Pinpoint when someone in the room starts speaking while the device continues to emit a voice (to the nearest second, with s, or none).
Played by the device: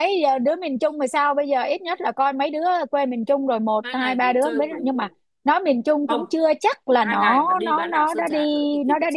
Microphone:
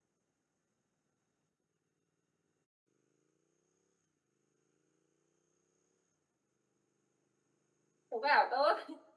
8 s